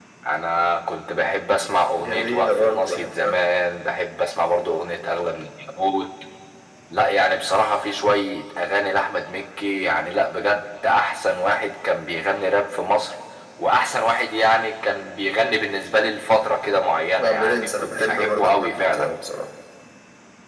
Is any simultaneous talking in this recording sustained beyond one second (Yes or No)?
Yes